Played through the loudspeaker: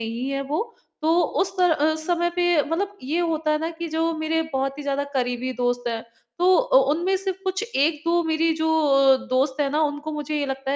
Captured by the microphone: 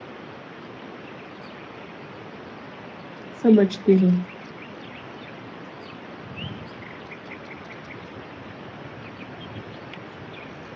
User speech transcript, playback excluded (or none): समझती हूँ।